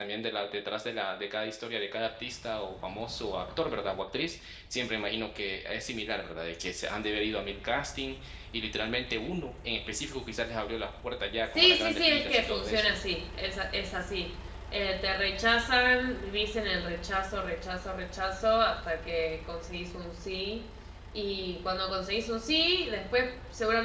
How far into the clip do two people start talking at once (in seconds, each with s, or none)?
11.6 s